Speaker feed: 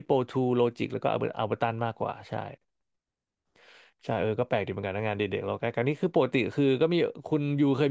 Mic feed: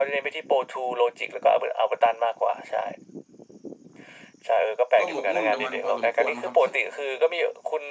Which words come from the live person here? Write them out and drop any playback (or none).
ก็หมกมุ่นกับมันพอสมควรครับ